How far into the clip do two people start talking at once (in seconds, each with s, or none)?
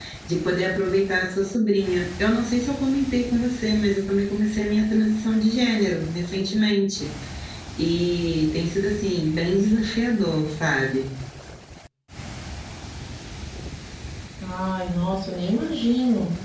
none